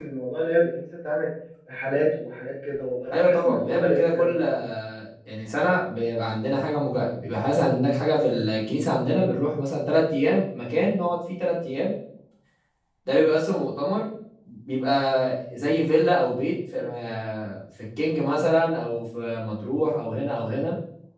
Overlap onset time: 3.1 s

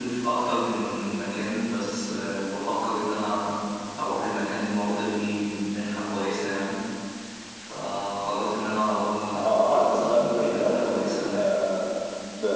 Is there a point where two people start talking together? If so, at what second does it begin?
9.4 s

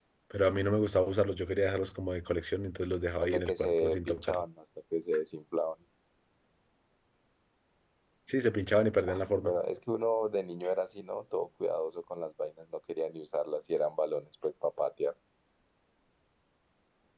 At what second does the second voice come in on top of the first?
3.2 s

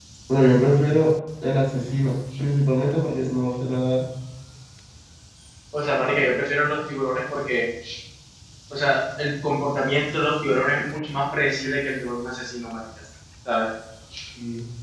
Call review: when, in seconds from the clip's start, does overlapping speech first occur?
none

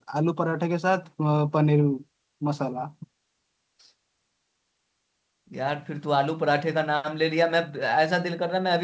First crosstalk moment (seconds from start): none

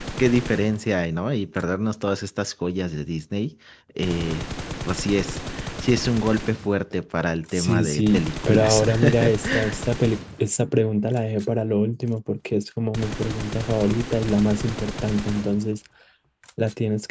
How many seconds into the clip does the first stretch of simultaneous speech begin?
7.5 s

